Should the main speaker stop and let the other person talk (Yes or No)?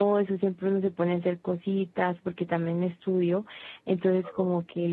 No